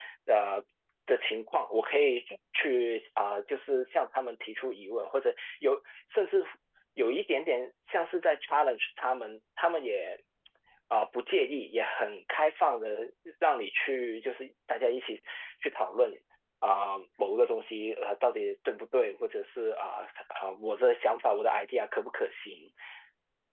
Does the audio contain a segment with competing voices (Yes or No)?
No